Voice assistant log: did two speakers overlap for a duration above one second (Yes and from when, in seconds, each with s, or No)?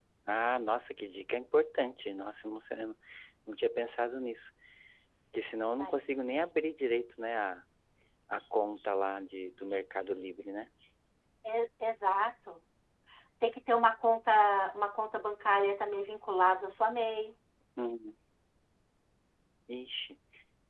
No